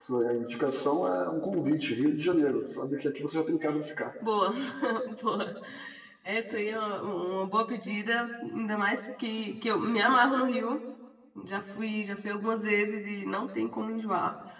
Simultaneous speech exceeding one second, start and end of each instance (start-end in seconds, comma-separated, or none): none